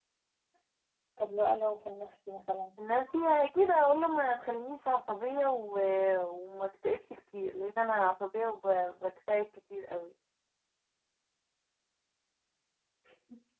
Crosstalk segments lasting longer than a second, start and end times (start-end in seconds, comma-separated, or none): none